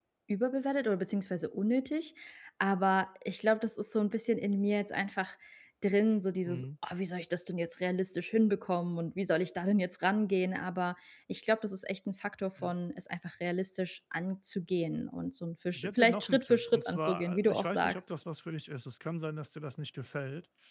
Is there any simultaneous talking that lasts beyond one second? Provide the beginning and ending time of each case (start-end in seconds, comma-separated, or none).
15.8-18.0